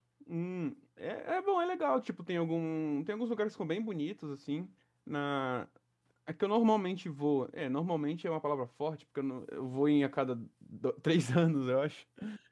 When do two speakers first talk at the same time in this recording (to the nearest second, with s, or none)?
none